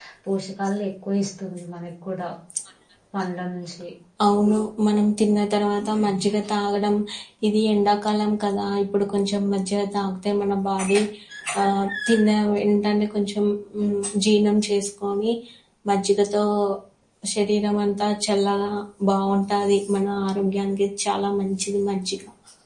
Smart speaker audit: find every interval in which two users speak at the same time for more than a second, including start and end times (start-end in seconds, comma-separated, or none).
none